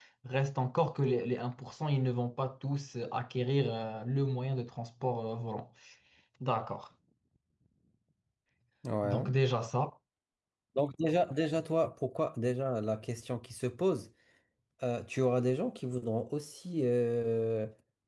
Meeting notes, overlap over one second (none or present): none